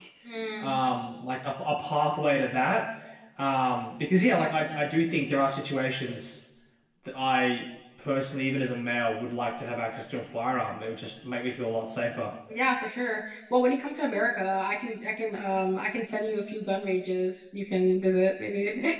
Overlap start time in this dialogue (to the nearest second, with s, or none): none